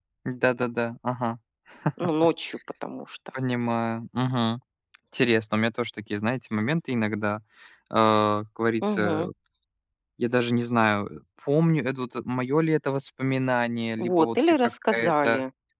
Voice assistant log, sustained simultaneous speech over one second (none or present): present